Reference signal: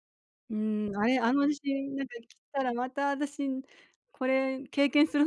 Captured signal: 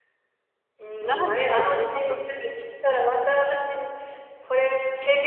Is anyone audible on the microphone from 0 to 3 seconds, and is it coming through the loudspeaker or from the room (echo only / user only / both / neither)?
both